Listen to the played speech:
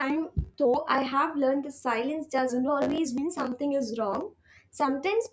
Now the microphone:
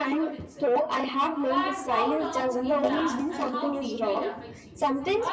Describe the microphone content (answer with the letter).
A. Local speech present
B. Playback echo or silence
A